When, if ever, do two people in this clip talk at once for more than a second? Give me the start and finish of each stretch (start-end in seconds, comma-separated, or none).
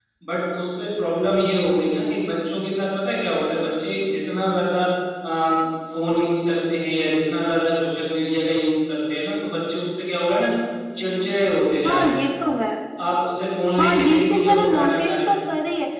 13.8-15.4